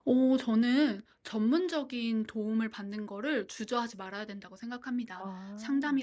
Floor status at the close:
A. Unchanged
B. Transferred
A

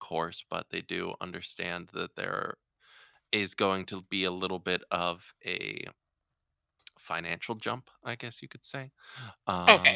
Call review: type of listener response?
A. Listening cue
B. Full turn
B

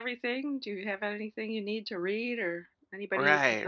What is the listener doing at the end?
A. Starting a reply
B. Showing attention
A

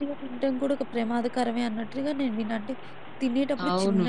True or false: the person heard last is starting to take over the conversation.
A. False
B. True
A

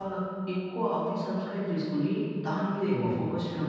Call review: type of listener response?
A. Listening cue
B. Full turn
A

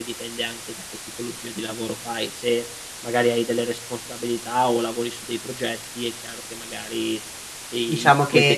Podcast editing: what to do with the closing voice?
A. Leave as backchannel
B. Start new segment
B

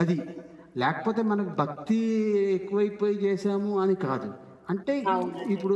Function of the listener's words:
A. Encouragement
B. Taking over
A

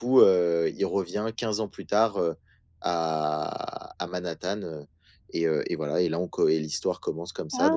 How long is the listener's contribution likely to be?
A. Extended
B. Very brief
B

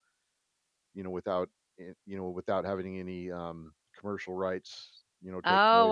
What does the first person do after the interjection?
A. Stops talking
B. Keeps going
A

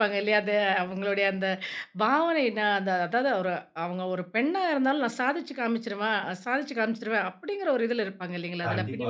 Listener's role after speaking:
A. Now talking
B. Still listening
A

